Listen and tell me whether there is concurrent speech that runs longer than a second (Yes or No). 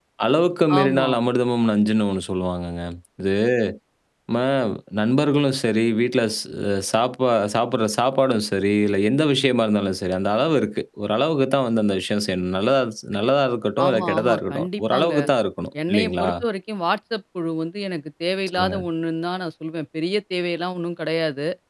Yes